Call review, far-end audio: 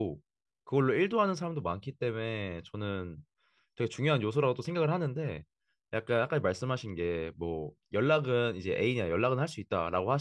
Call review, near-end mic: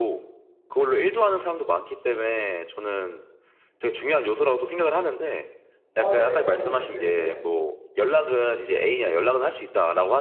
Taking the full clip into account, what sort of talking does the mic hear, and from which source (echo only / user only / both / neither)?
both